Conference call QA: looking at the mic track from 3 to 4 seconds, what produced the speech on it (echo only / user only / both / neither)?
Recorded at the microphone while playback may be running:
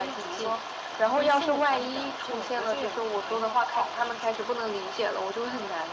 echo only